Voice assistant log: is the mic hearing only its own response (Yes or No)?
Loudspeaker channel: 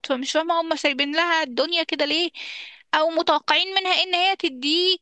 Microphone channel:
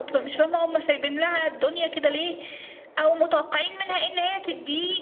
Yes